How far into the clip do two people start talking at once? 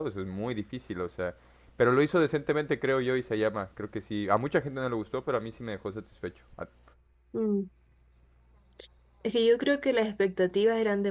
none

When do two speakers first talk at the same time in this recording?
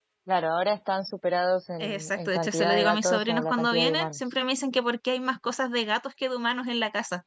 1.8 s

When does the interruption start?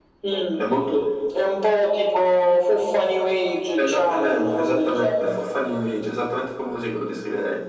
3.8 s

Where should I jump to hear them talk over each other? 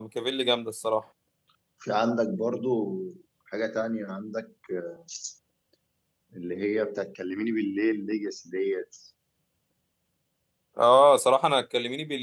none

